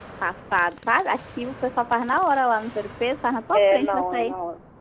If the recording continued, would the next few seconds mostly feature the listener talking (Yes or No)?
Yes